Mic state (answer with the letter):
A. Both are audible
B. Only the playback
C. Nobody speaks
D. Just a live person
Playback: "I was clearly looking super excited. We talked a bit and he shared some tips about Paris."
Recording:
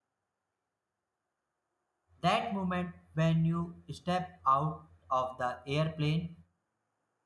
D